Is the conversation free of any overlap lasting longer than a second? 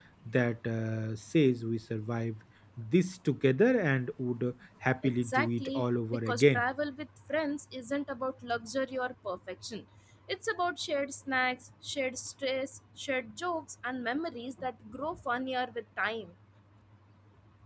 No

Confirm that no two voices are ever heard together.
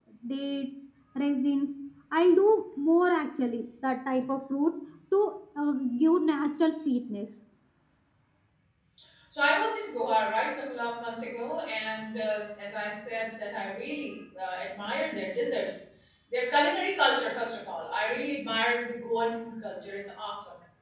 Yes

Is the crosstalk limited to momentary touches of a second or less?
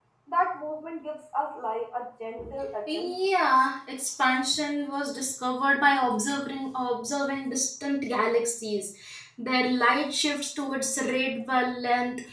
Yes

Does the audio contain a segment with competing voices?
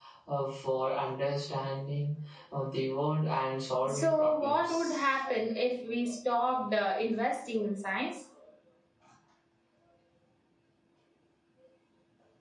Yes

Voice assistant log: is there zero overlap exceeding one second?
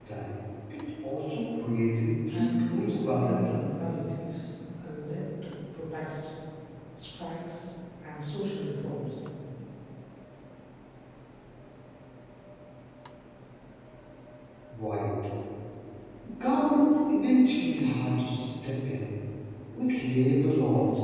No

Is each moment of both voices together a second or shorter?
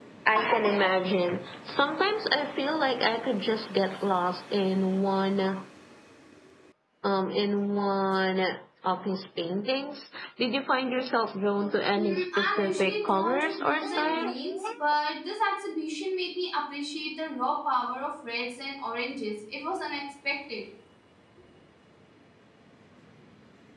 No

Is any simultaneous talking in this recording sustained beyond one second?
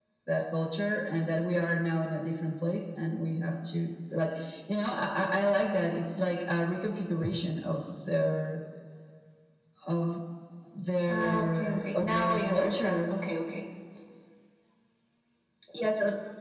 Yes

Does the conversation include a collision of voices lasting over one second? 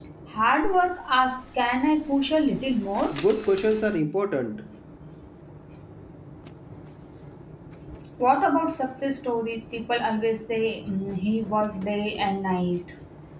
No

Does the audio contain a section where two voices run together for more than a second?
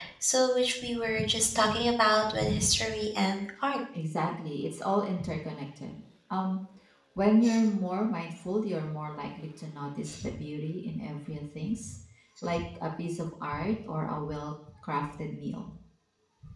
No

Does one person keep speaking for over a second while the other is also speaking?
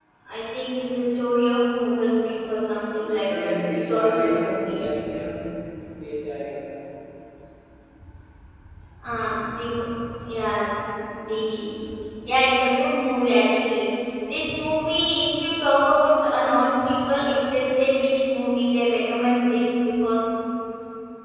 Yes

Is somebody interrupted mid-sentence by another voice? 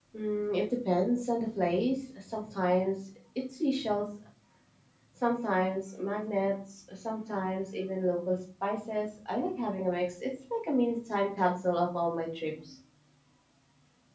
No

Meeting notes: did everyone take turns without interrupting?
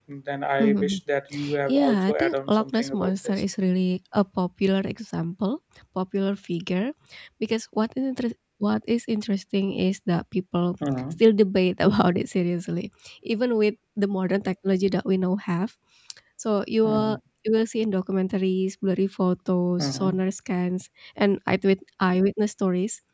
No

